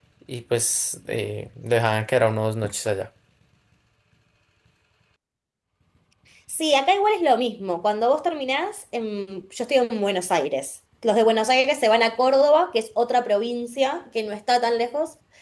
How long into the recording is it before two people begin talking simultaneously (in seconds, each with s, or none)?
none